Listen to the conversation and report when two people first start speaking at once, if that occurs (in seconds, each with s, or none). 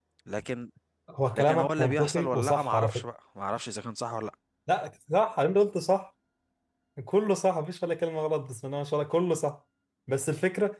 1.3 s